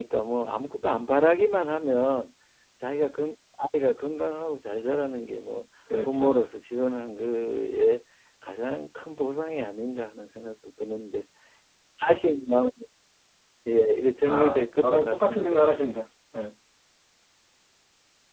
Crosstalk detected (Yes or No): Yes